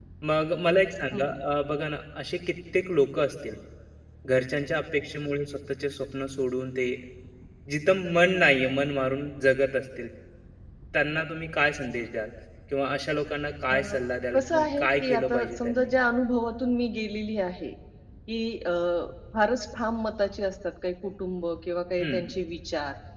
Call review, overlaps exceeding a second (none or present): present